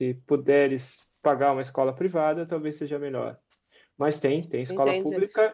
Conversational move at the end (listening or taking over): taking over